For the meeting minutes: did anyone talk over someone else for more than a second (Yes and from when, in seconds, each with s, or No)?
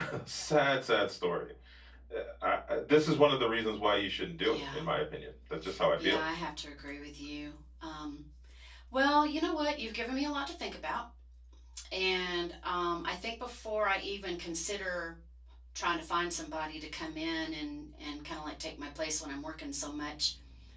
No